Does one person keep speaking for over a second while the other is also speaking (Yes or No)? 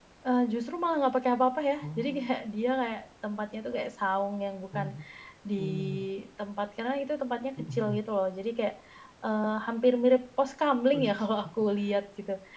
No